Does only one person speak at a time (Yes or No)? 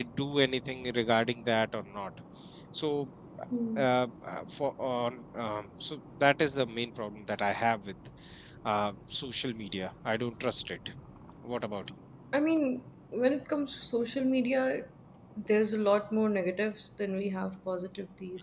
Yes